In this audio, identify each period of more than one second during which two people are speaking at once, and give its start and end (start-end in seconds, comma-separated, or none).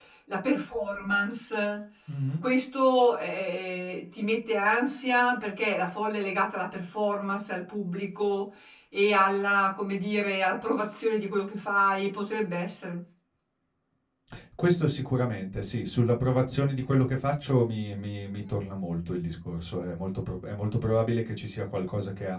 none